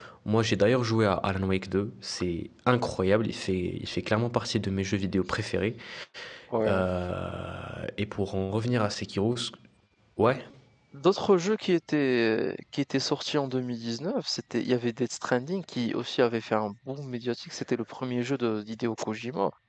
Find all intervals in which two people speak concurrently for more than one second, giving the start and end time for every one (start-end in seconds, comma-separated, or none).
none